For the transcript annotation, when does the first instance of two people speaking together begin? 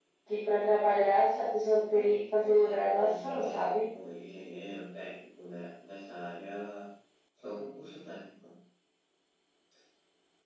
1.7 s

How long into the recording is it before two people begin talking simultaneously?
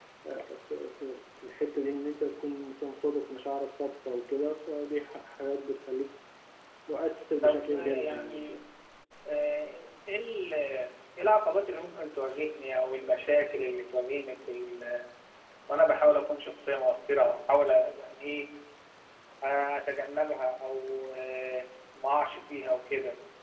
7.4 s

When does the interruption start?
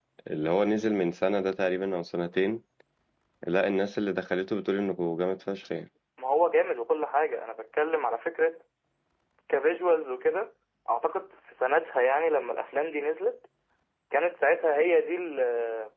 none

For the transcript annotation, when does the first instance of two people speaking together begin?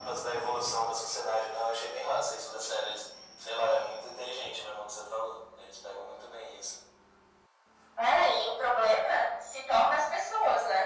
none

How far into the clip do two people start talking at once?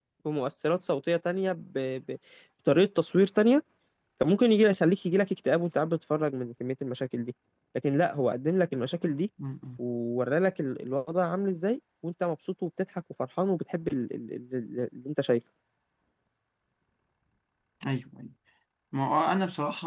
none

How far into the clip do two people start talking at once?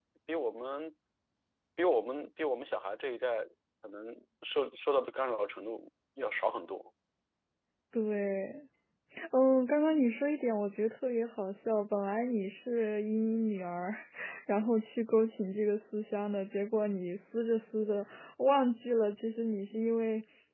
none

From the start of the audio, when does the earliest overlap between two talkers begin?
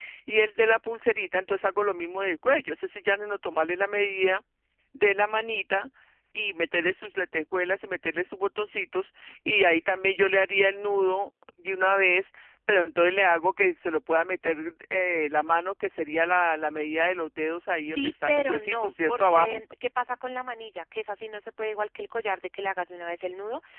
17.8 s

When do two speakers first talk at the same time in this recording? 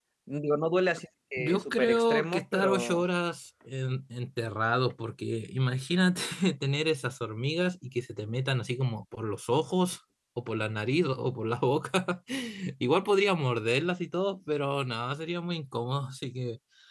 1.4 s

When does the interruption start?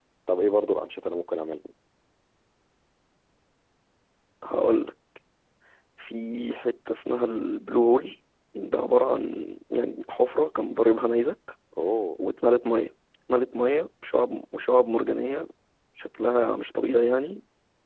none

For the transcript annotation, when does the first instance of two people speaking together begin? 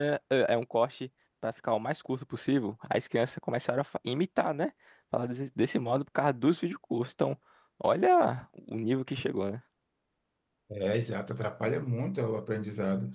none

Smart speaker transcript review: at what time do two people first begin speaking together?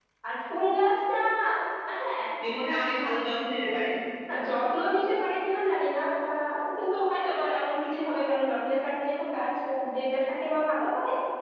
none

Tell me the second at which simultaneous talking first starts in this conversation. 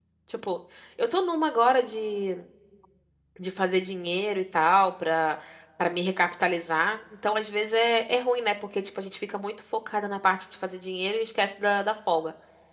none

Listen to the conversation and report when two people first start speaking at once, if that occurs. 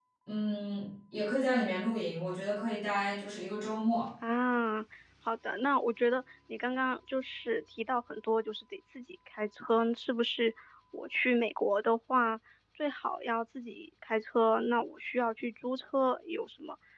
none

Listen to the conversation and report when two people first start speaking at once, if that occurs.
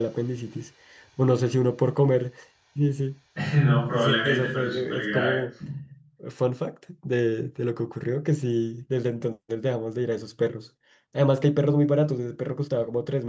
3.9 s

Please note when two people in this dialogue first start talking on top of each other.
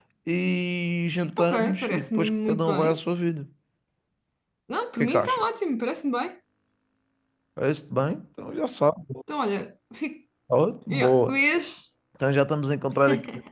1.4 s

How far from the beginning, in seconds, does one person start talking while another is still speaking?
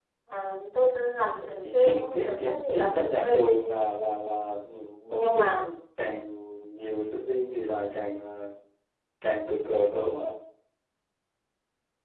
1.6 s

